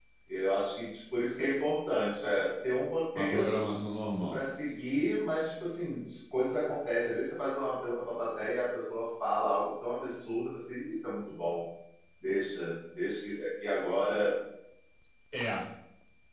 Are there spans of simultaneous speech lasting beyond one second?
No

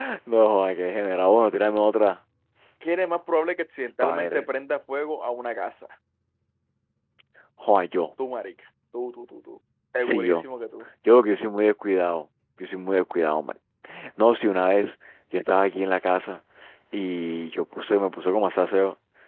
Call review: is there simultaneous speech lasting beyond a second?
No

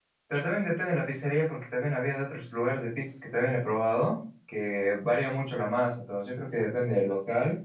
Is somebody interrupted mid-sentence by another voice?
No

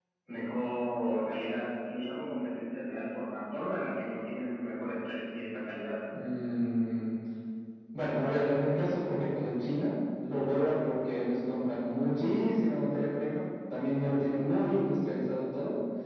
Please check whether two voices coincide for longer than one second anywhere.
No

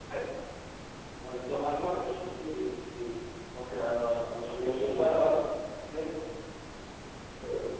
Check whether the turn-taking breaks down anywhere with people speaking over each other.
Yes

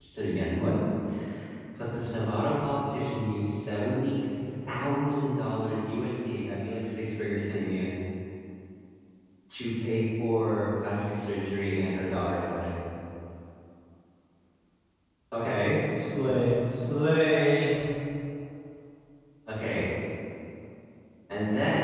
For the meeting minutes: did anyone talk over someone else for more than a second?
No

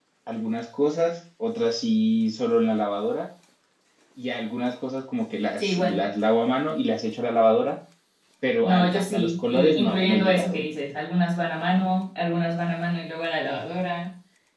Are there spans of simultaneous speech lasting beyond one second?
Yes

